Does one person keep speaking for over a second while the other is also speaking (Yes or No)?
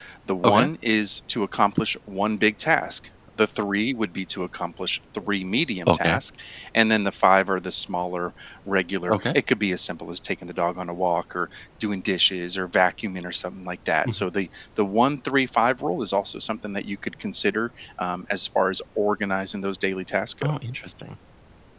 No